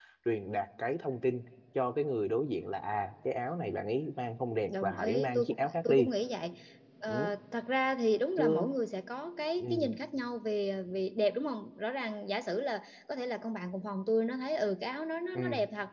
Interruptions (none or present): present